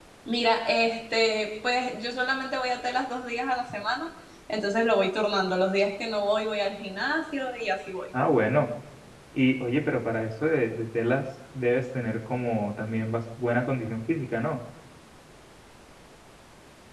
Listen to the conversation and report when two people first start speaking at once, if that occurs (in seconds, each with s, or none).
none